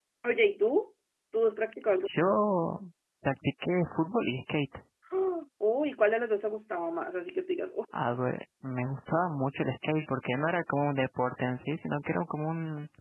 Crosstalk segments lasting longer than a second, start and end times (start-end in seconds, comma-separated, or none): none